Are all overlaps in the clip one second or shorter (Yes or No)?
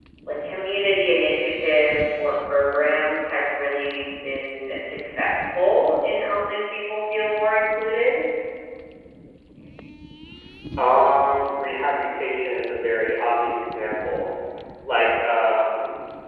Yes